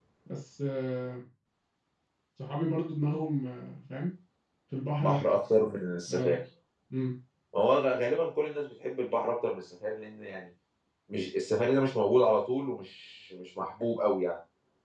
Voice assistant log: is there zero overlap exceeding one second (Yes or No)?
Yes